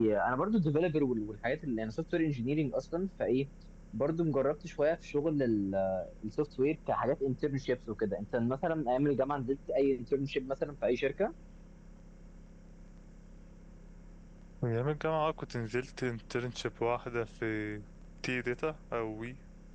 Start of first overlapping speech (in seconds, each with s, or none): none